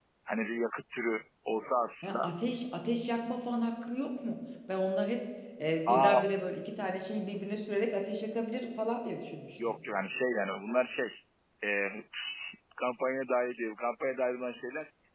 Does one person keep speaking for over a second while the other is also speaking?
No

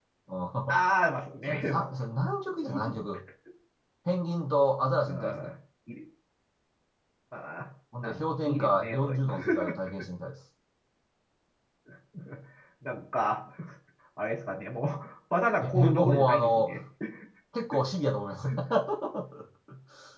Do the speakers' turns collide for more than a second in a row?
Yes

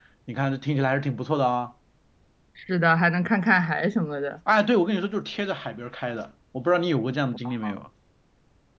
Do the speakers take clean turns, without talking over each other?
Yes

